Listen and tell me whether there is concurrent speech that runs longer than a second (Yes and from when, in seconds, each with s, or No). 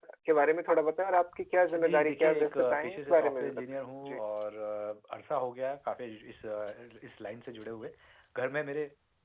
Yes, from 1.7 s